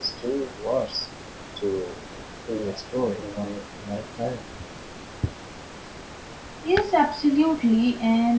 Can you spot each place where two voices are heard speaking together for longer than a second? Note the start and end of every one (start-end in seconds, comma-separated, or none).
none